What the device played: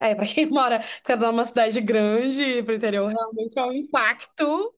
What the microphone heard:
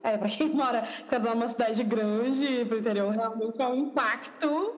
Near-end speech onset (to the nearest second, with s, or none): none